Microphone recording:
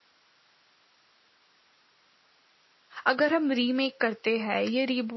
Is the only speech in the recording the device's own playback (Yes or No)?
No